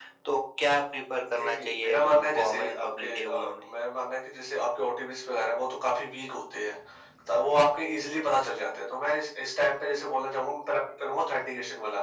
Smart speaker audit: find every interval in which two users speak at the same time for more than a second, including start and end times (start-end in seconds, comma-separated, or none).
1.2-3.6